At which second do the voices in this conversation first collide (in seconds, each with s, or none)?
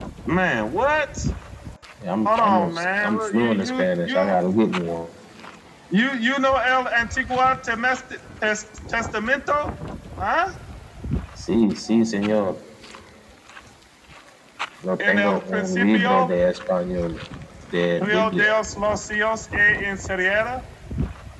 2.2 s